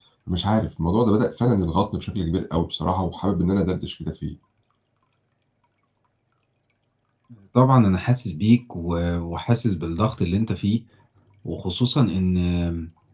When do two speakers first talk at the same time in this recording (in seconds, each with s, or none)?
none